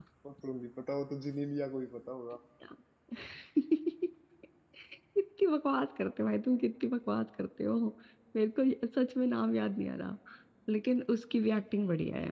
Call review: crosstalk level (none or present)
none